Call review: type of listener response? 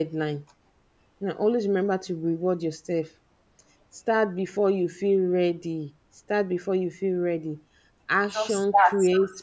listening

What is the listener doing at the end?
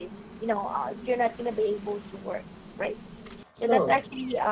listening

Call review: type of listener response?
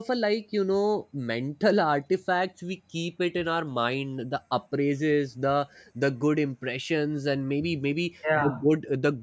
listening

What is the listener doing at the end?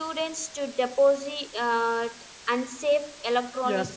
taking over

